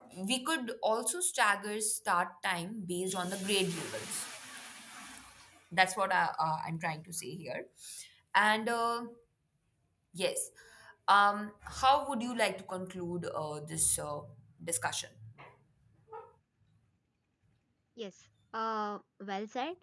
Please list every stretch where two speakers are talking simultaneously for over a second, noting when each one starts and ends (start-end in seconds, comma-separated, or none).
none